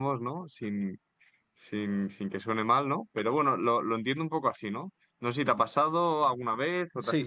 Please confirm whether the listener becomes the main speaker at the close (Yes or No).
Yes